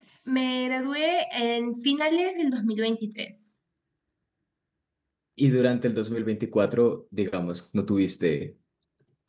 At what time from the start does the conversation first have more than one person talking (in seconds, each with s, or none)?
none